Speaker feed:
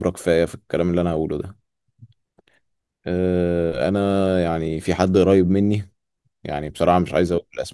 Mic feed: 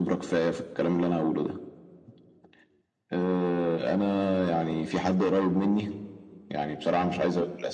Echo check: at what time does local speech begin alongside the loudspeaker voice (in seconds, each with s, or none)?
none